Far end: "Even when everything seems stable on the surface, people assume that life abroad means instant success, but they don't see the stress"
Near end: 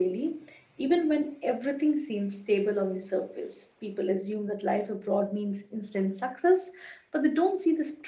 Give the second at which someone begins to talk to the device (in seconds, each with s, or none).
none